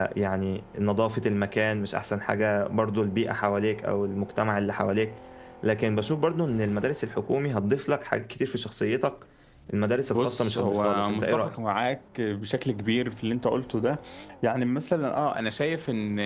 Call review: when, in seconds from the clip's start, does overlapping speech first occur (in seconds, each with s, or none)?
10.1 s